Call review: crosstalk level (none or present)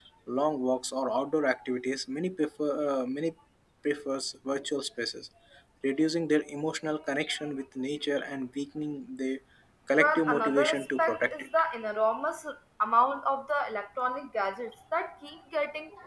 present